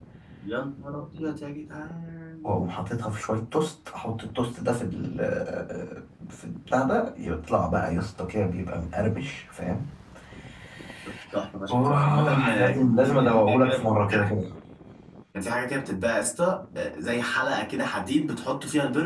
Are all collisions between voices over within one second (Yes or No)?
No